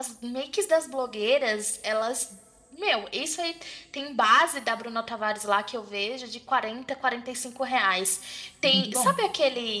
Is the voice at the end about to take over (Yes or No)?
No